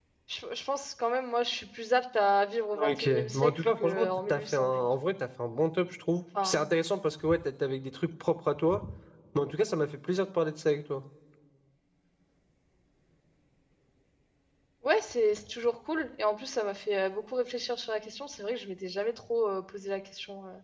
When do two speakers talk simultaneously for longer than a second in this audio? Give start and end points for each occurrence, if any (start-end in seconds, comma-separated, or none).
2.8-4.9